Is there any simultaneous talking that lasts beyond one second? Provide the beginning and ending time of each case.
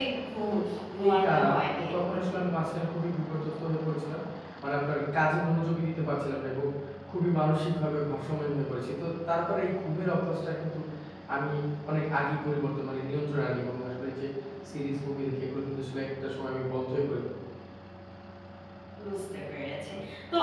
1.0-2.4

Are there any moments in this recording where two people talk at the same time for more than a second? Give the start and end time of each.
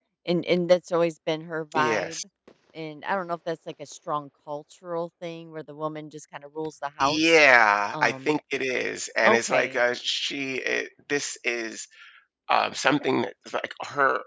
none

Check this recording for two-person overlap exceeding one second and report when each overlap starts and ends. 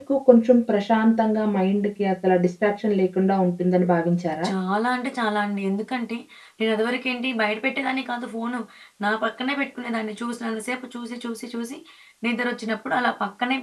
none

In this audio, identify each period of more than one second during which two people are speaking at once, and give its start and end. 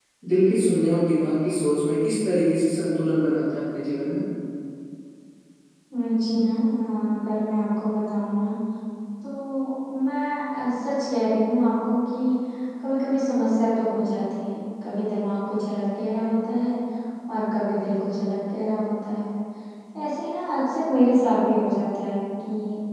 none

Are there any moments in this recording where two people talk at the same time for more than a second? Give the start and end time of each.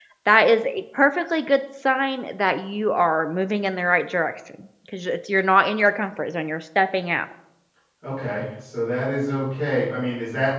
none

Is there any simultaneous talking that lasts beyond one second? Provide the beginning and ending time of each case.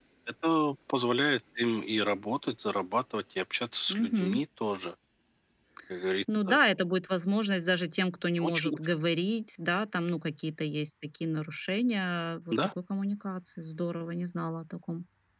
none

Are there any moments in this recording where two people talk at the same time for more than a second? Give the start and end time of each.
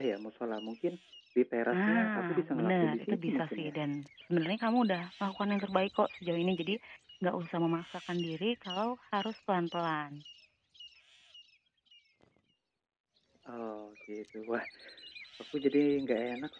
1.7-3.7

